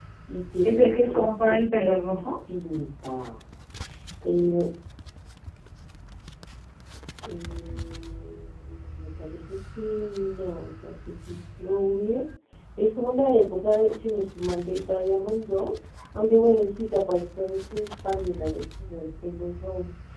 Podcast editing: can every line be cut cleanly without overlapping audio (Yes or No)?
No